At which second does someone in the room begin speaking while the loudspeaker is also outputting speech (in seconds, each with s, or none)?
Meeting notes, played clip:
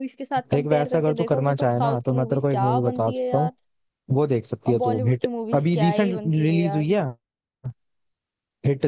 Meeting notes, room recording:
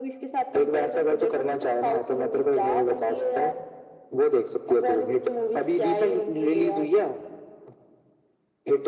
none